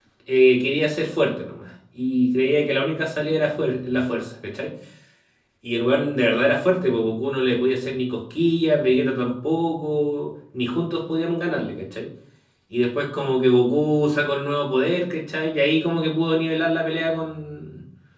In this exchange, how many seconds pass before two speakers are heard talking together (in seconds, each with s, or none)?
none